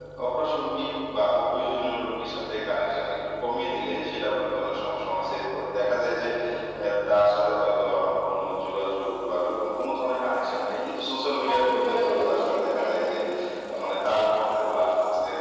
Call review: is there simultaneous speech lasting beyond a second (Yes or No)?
Yes